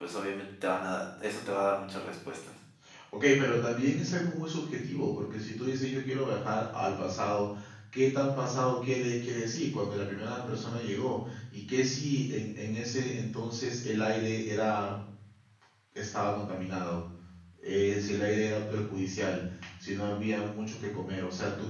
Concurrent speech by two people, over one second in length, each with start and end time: none

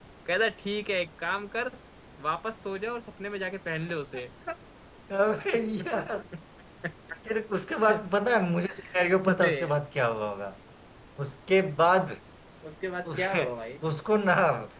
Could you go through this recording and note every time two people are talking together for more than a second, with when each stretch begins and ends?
none

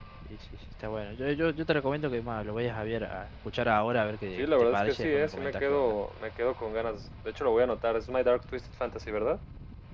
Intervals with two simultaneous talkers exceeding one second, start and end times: 4.4-5.9

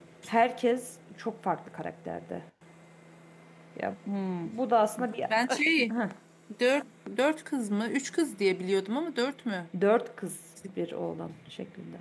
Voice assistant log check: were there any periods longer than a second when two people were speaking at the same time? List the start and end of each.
none

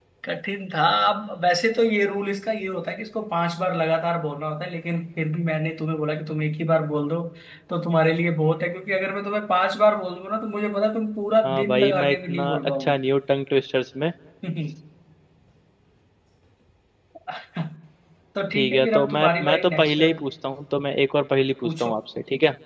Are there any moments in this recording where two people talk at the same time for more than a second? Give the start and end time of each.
11.4-13.0, 18.5-20.2

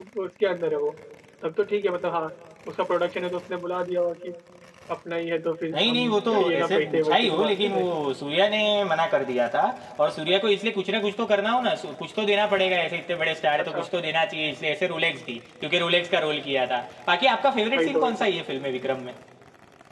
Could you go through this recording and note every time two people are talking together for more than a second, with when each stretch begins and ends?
5.7-7.8

